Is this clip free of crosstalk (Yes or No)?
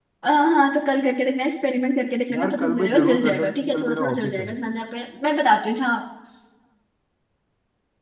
No